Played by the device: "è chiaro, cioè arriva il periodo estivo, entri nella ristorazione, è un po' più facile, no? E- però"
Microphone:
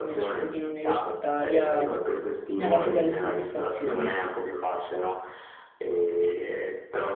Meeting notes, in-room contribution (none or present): present